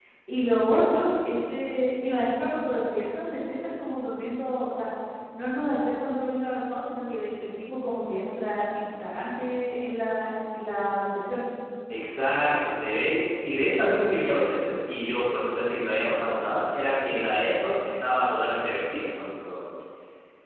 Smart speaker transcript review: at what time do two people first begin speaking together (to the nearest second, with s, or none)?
none